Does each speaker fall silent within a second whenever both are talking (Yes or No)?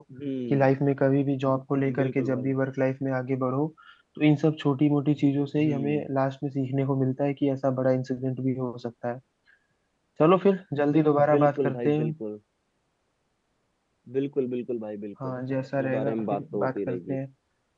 No